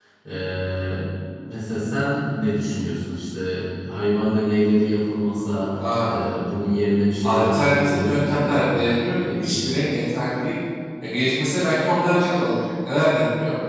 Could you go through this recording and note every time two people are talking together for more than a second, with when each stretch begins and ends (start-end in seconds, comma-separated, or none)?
7.2-8.6